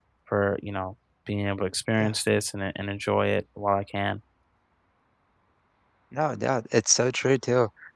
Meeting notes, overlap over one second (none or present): none